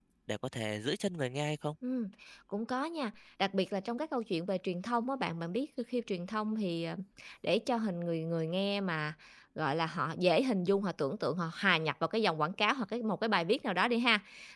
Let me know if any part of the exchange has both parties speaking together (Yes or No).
No